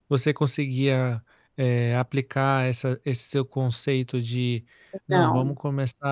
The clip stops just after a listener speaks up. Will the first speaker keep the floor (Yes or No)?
Yes